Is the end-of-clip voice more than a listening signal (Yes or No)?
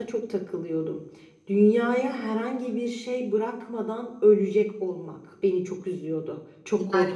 Yes